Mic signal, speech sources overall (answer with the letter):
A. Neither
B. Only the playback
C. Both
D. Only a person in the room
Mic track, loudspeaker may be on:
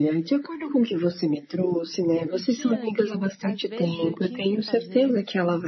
C